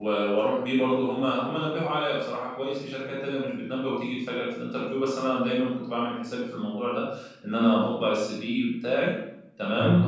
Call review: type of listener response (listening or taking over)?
taking over